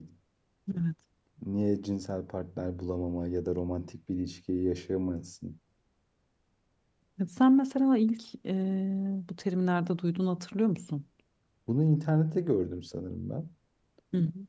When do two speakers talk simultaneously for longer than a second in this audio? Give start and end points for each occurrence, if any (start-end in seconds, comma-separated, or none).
none